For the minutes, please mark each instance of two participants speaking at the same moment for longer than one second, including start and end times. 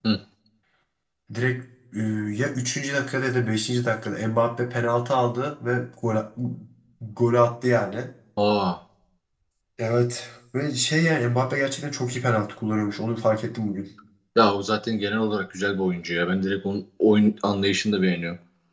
none

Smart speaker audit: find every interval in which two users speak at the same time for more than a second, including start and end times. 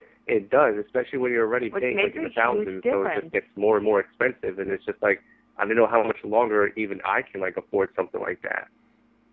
1.7-3.3

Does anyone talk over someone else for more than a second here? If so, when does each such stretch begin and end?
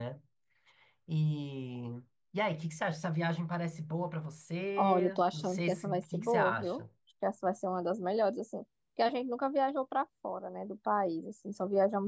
4.8-6.8

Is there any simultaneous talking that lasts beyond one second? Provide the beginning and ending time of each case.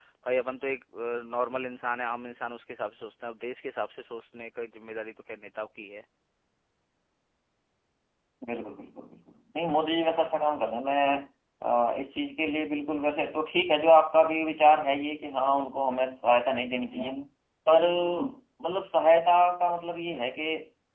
none

